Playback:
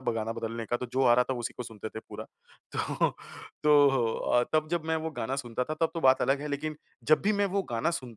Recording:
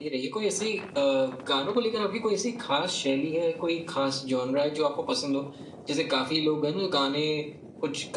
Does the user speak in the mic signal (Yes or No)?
Yes